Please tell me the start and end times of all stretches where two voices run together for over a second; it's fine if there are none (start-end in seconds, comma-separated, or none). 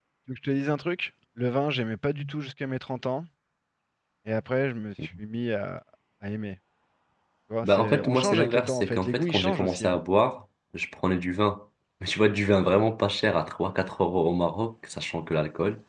7.6-10.0